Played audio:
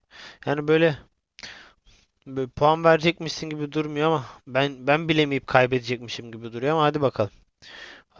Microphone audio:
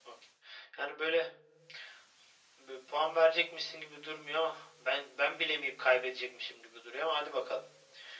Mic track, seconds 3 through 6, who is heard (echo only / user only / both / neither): echo only